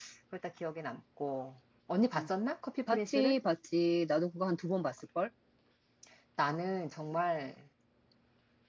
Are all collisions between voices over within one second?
Yes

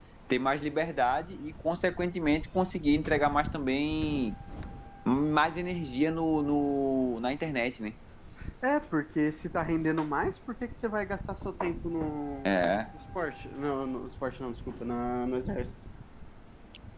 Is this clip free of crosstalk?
Yes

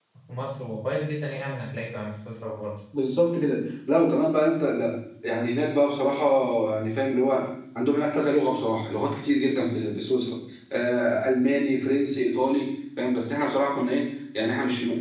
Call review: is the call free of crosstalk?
Yes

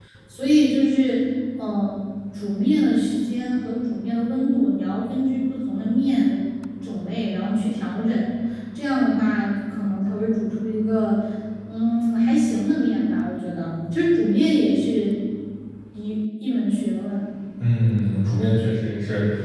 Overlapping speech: No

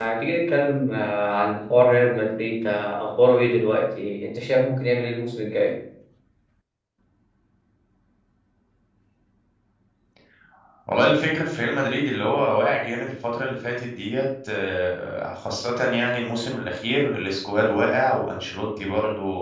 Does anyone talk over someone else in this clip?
No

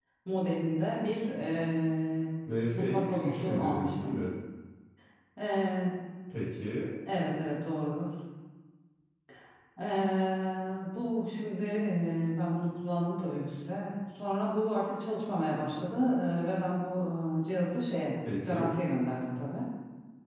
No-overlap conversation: No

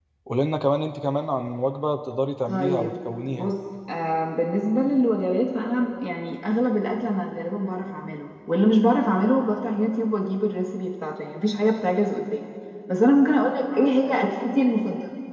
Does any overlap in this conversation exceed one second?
No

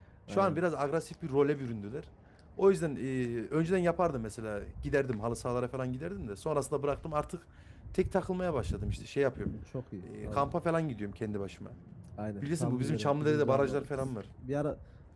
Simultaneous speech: Yes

